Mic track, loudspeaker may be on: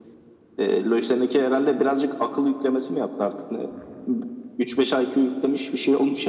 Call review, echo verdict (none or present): present